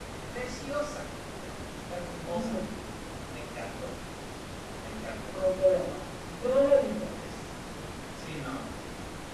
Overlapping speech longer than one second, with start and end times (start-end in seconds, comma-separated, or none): none